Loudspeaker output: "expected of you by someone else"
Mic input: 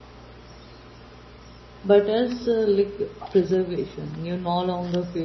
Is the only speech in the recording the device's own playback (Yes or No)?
No